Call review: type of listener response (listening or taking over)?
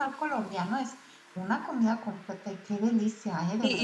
taking over